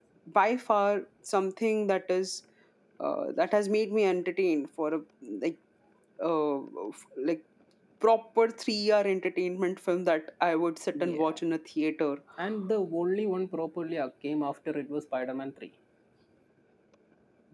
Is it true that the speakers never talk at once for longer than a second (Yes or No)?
Yes